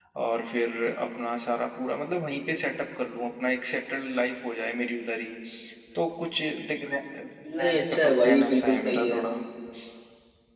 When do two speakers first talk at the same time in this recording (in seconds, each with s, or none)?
7.4 s